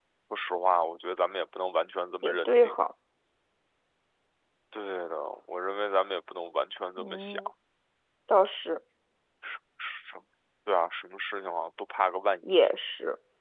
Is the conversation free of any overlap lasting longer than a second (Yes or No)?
Yes